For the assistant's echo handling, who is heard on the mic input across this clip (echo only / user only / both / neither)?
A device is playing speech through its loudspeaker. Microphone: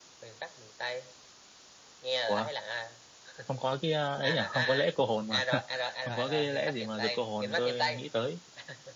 both